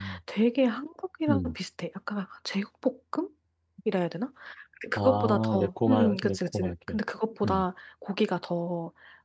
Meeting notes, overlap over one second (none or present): present